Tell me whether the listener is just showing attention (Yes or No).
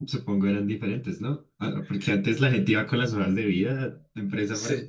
No